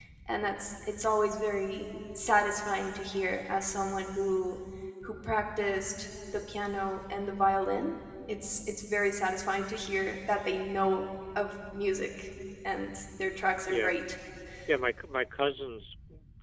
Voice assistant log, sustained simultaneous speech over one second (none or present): none